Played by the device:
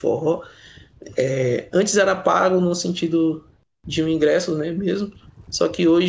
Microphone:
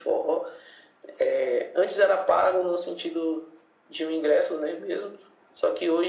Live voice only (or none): none